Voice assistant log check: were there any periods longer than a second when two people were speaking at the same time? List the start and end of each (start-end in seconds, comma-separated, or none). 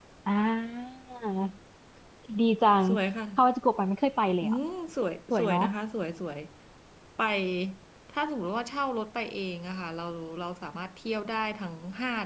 none